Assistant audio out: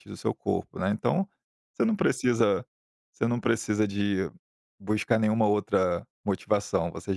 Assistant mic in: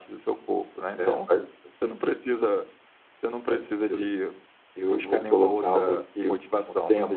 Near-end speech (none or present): present